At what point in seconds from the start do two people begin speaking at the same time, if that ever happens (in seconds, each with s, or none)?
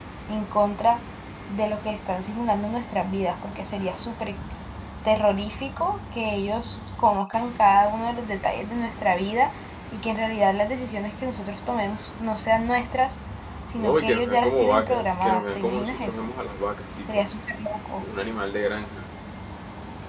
13.8 s